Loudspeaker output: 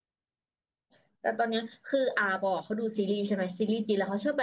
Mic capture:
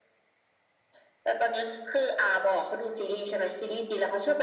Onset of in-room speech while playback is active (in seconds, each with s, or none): none